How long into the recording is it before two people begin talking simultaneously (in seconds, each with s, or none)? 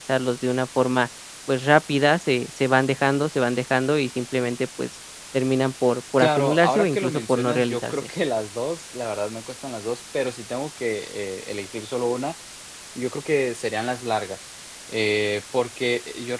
6.2 s